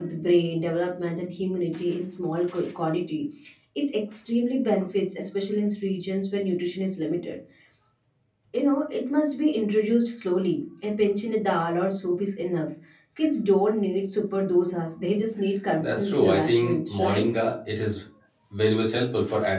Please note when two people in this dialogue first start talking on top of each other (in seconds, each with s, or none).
15.8 s